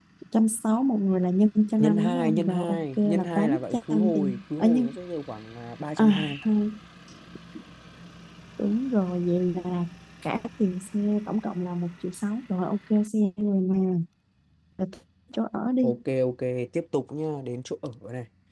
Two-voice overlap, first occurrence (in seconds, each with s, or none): 1.8 s